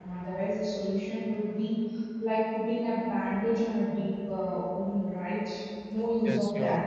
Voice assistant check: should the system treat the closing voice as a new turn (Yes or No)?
Yes